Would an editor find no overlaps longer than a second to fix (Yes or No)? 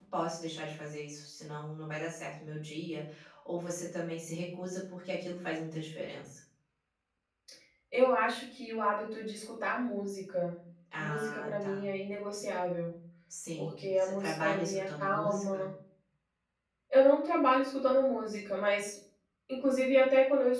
No